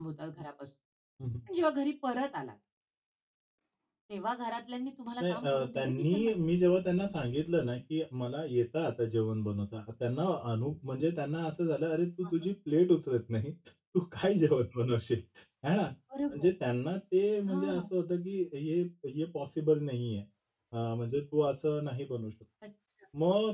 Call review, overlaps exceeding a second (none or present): present